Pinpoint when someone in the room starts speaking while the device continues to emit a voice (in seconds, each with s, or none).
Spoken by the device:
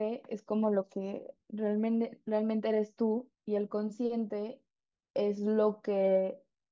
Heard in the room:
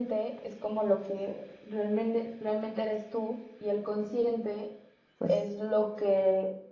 5.2 s